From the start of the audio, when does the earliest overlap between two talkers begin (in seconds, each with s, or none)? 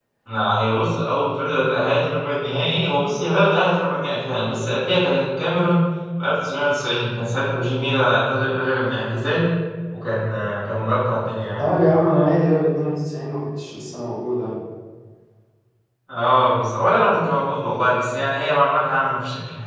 none